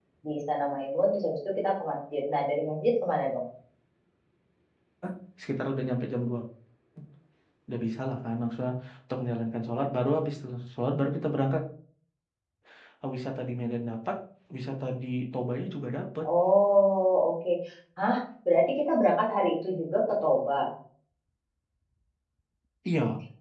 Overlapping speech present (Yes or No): No